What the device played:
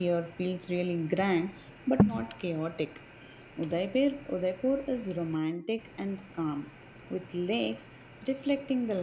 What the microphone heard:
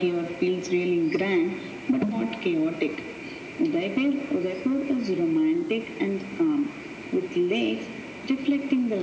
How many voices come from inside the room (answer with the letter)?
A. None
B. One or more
A